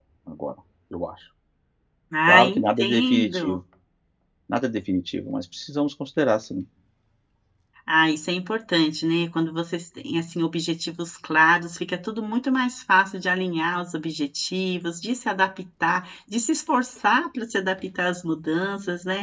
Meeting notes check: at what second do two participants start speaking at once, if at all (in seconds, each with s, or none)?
2.3 s